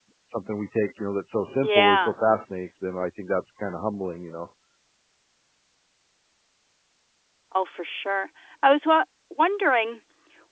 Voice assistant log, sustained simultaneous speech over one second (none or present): none